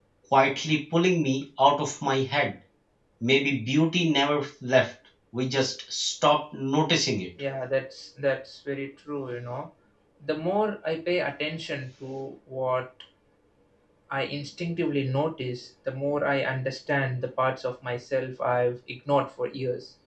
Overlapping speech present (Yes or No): No